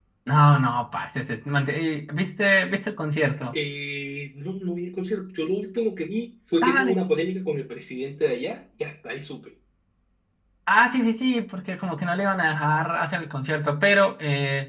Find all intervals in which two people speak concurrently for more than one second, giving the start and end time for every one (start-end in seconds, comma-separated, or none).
none